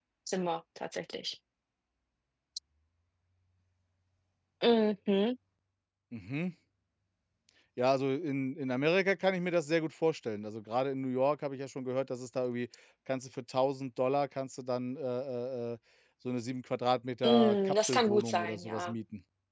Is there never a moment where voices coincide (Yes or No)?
No